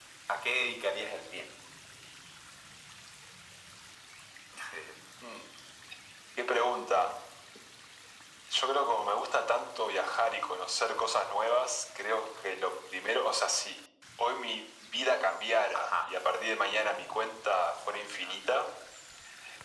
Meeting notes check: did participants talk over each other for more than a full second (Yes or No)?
No